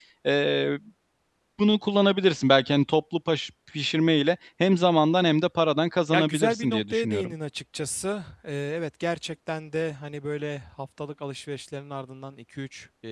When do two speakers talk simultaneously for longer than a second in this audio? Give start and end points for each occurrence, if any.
6.1-7.3

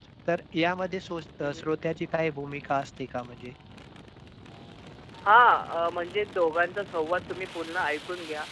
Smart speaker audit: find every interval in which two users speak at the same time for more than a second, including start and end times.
none

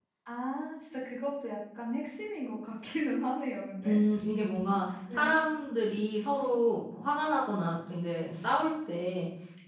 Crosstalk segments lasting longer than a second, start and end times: none

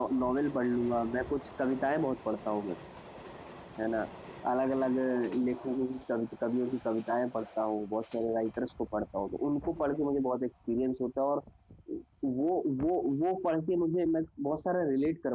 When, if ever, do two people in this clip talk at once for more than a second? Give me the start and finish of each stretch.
none

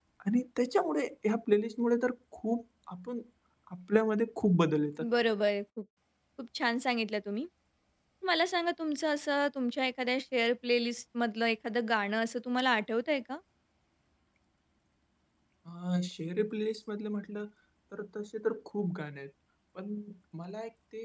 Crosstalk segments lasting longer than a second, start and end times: none

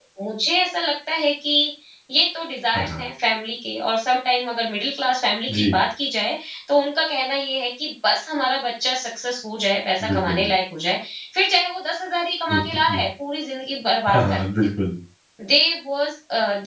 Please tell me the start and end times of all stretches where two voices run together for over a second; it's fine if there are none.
none

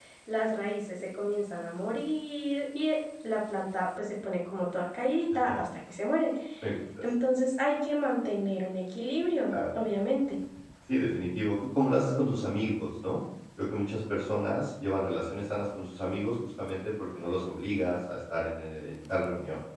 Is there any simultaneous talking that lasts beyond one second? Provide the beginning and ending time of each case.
none

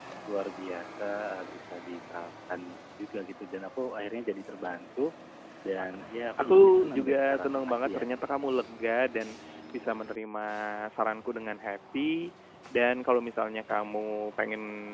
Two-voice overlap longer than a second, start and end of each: 6.4-8.0

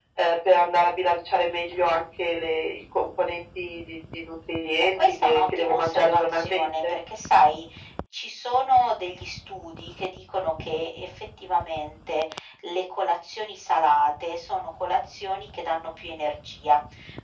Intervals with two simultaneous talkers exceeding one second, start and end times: 4.8-7.0

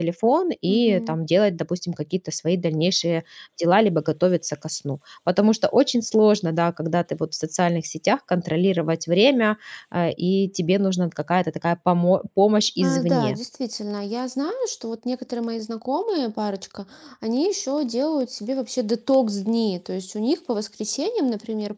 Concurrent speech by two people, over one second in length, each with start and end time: none

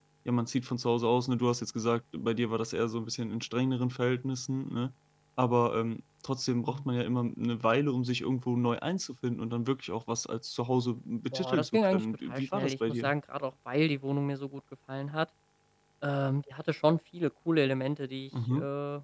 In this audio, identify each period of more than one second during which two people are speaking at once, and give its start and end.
11.3-13.1

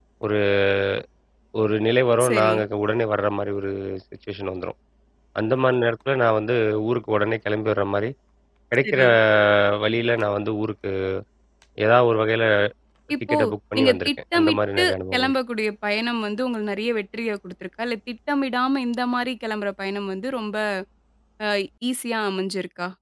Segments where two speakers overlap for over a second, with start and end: 13.8-15.3

